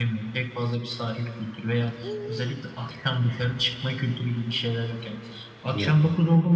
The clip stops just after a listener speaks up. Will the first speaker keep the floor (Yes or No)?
Yes